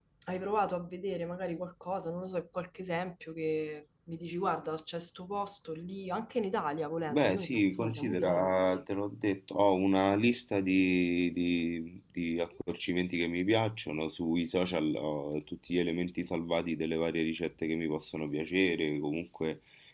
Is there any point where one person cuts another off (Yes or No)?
Yes